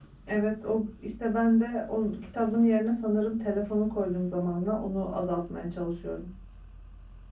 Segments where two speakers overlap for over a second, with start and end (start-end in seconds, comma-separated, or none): none